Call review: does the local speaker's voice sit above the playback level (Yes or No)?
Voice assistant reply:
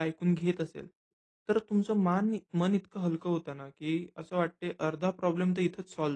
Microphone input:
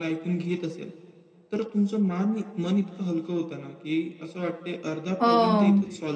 Yes